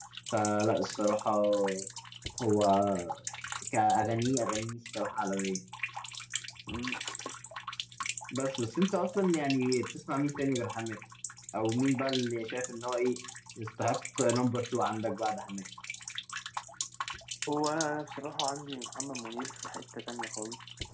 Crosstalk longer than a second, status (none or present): none